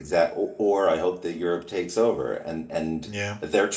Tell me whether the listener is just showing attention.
Yes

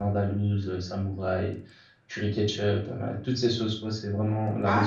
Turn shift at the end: Yes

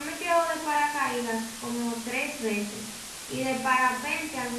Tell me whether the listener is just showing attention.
Yes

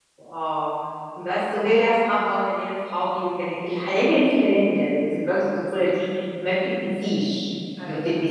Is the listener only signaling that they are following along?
Yes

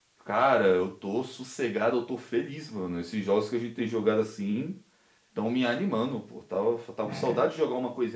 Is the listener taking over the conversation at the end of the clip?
No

